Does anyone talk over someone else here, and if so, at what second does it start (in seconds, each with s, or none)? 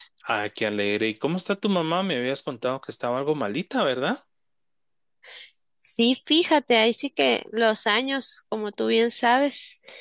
none